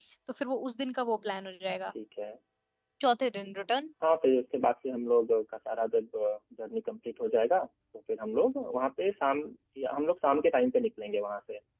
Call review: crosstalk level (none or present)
none